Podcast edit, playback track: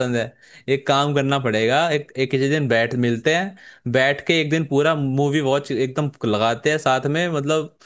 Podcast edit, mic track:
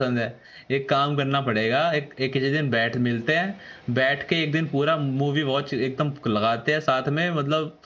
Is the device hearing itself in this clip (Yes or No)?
Yes